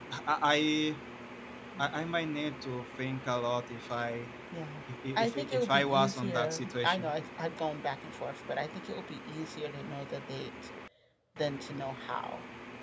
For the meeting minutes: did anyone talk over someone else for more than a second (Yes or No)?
Yes